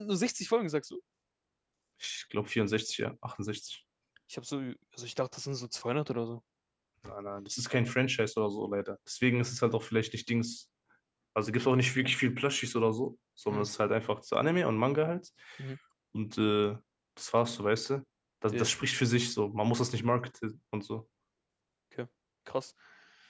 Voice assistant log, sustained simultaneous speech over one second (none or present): none